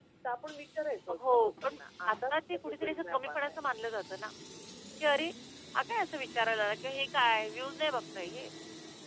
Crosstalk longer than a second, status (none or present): present